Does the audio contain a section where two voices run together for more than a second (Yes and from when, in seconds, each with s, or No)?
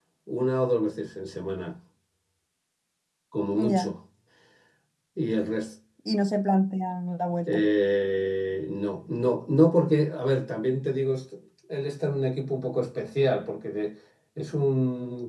No